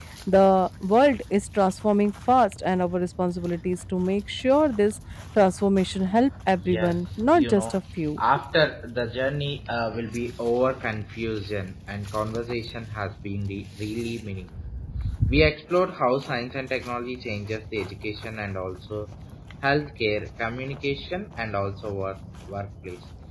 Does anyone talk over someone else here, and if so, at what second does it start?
7 s

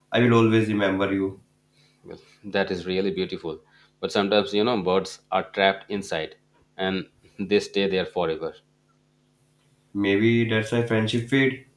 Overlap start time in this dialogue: none

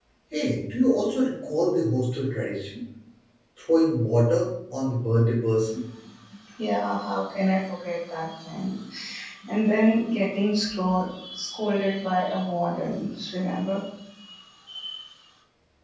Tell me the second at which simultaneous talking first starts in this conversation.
none

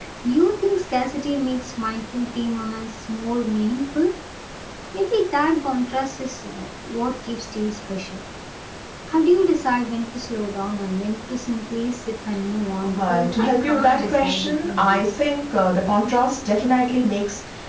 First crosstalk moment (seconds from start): 13 s

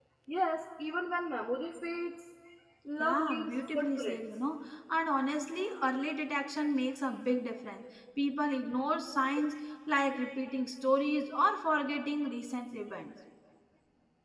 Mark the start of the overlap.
3 s

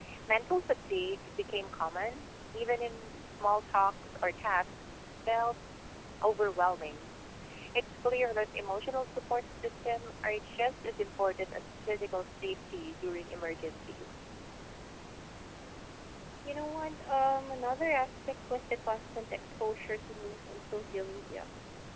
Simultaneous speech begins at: none

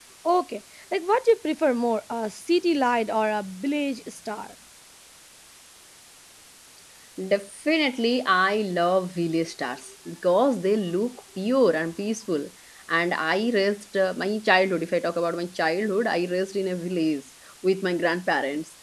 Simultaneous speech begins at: none

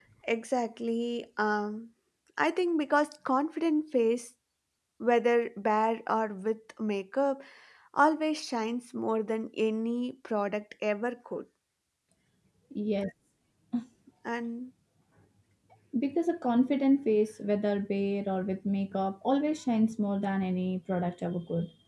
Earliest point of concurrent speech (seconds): none

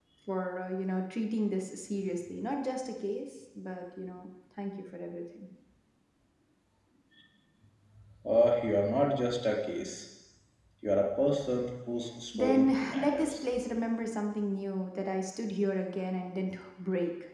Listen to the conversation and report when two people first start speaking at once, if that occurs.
12 s

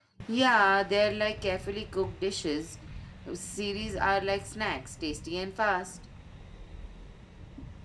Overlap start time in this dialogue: none

